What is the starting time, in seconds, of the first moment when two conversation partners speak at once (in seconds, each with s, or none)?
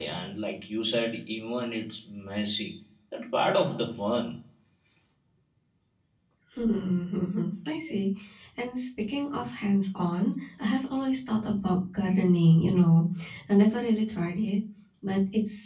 none